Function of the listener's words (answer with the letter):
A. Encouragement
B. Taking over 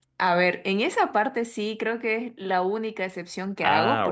A